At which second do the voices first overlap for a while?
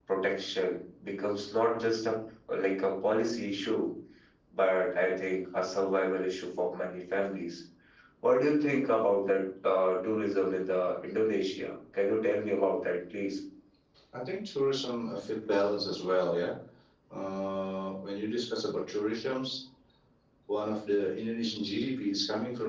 none

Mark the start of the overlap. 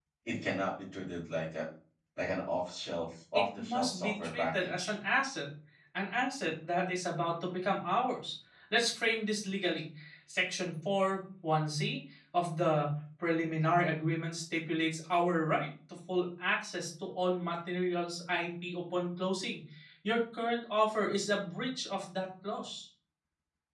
3.3 s

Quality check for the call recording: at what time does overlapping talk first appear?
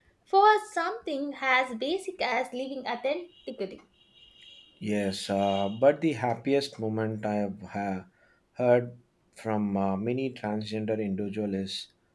none

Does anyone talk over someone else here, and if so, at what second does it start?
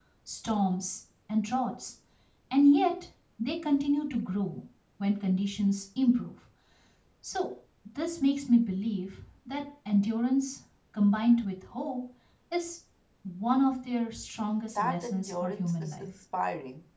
14.8 s

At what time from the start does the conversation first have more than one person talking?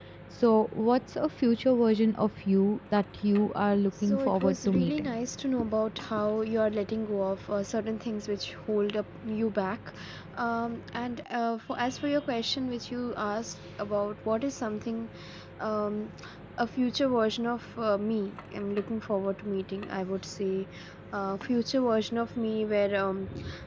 4.0 s

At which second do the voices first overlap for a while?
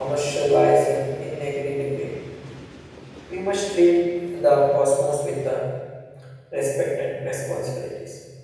none

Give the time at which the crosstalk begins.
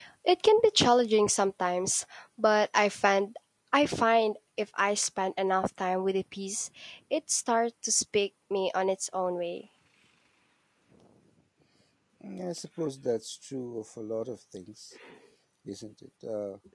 none

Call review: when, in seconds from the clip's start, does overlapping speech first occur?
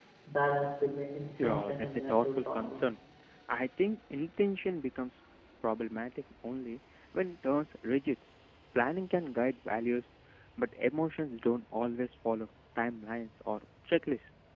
1.4 s

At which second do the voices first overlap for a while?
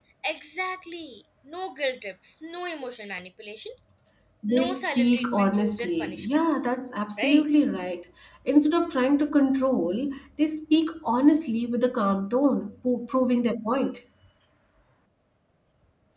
4.5 s

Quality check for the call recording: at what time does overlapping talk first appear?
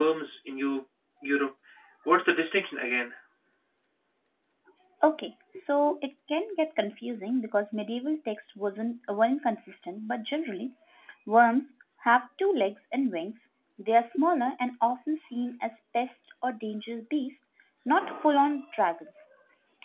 none

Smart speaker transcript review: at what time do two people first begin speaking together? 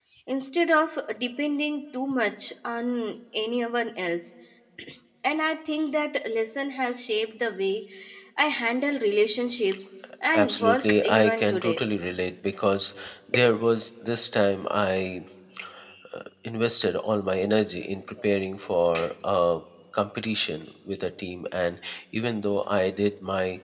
10.3 s

